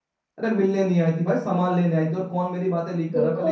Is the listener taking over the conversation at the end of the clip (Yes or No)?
Yes